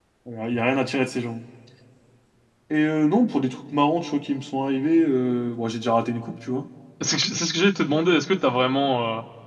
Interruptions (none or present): none